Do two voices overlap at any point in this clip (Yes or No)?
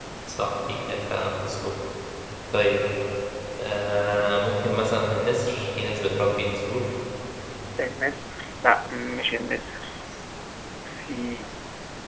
No